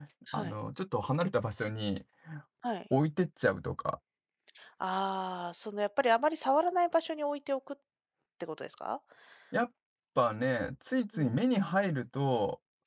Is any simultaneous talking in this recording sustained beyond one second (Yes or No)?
No